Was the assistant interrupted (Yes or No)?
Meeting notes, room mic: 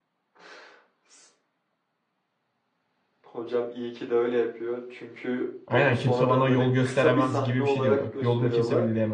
Yes